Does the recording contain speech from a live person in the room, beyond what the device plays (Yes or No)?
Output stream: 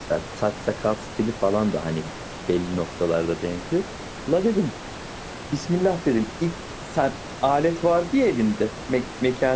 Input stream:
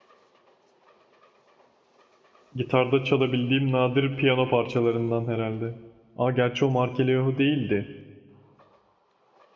Yes